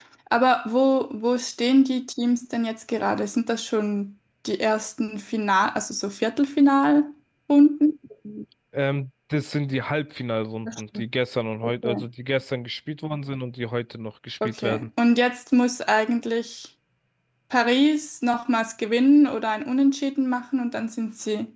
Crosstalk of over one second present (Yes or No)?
No